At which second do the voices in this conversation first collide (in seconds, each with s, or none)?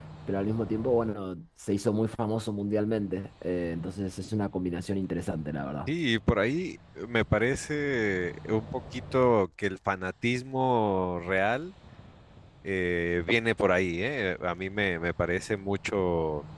none